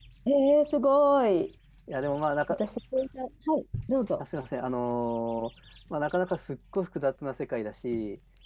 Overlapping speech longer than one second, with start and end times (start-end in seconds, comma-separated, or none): none